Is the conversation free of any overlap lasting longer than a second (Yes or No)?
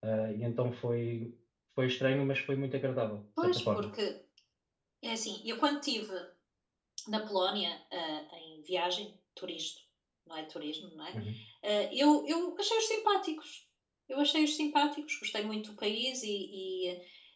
Yes